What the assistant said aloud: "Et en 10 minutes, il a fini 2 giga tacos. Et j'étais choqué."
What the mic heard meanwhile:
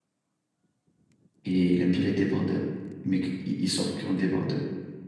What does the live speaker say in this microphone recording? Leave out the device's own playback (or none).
et il aime bien les débardeurs. Mais qu- il il sort que en débardeur.